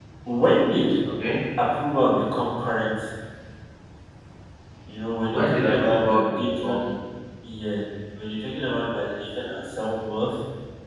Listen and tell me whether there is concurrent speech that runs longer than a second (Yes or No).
Yes